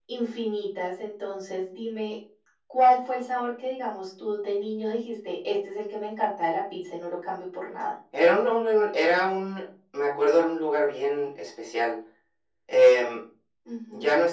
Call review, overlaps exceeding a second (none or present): none